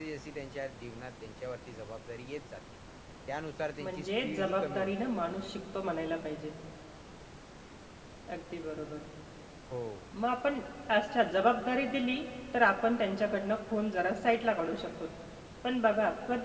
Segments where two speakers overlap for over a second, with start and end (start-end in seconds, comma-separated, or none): 3.8-5.1